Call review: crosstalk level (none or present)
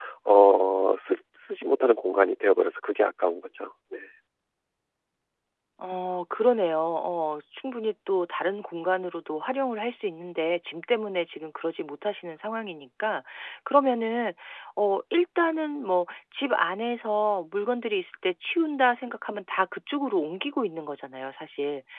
none